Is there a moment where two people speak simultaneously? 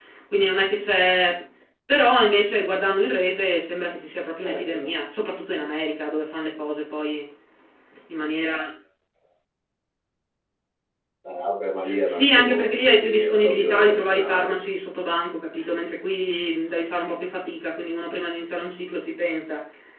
Yes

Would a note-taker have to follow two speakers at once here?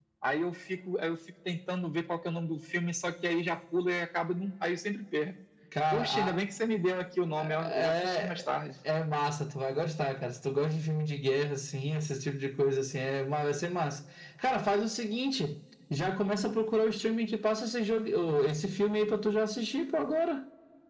Yes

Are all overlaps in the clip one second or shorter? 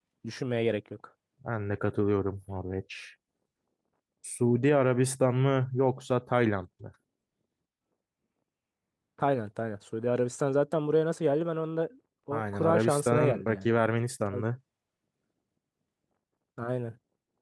No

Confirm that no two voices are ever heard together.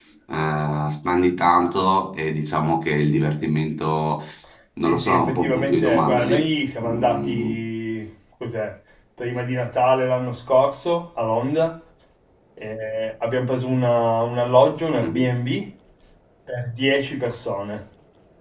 No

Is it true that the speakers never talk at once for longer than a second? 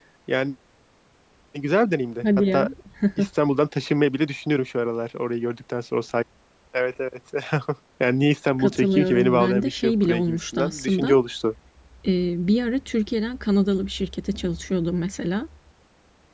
No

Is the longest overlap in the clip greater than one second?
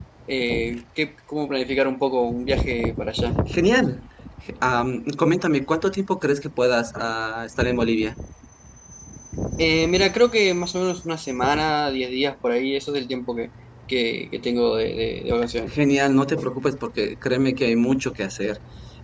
No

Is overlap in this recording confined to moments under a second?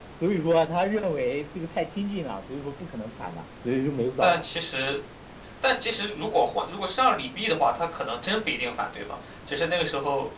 Yes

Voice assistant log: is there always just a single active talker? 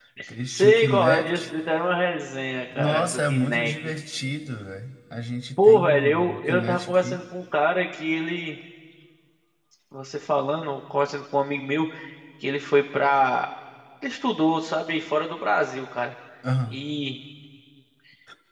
No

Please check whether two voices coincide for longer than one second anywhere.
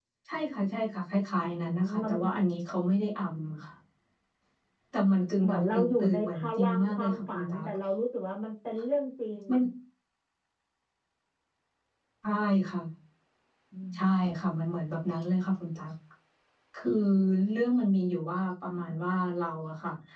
Yes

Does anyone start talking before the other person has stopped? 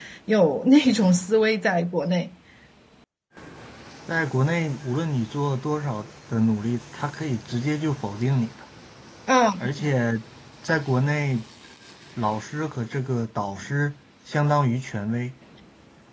No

